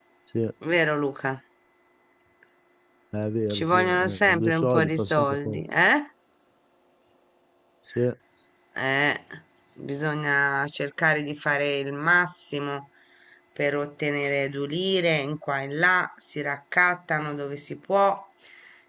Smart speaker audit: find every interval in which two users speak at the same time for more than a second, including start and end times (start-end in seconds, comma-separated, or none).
3.5-5.6